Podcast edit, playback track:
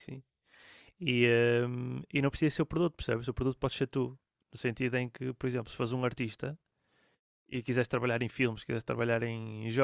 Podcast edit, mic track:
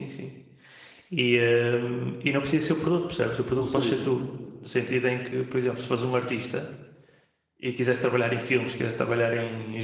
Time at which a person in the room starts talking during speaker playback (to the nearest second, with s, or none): 4 s